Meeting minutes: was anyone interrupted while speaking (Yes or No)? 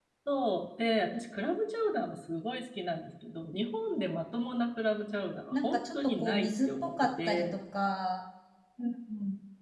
Yes